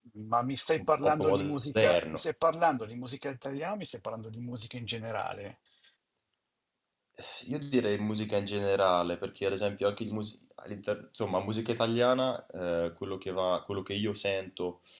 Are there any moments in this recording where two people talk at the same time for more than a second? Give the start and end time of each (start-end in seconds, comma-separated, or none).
0.8-2.2